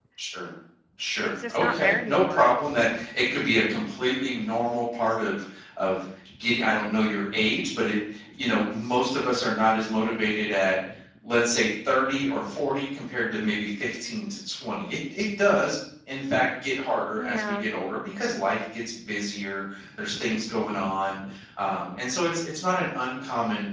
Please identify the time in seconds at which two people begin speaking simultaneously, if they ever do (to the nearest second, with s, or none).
1 s